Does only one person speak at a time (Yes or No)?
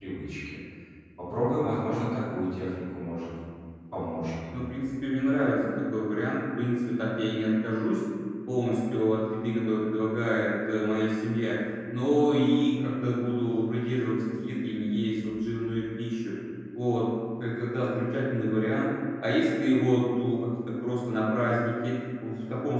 Yes